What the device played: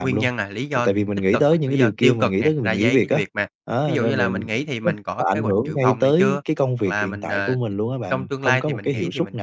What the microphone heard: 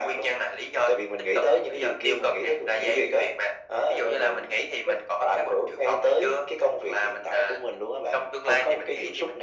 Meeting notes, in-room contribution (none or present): none